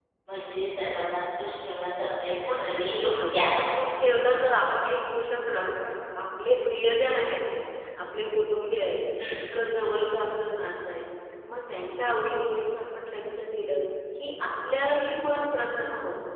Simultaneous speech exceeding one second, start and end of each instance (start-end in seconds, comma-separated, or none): 2.4-3.7